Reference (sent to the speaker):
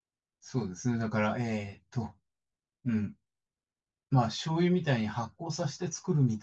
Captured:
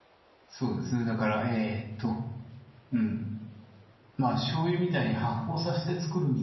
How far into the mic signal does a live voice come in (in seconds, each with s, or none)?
none